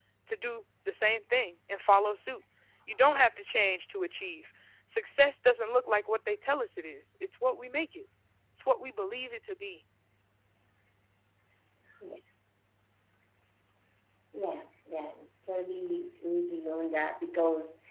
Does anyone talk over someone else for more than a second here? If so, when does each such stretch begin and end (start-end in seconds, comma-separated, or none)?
none